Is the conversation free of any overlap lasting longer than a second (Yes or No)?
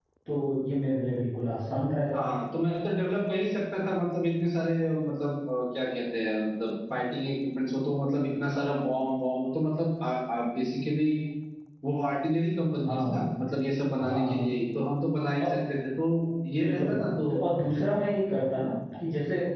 Yes